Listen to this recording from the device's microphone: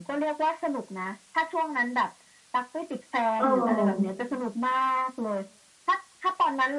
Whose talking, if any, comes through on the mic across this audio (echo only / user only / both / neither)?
both